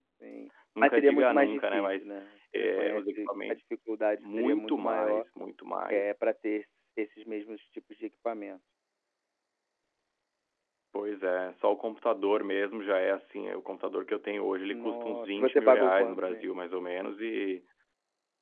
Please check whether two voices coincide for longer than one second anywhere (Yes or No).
Yes